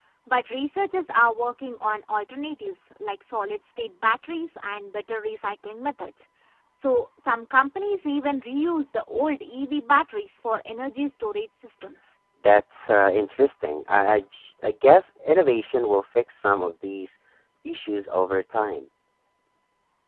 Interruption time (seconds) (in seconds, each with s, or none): none